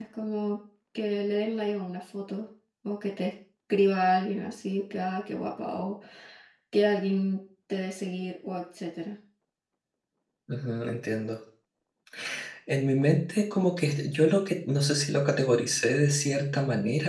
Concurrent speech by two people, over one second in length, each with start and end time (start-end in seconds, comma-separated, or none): none